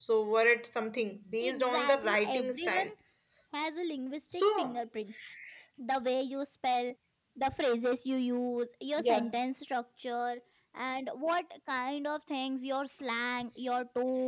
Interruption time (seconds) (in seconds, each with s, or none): 1.4 s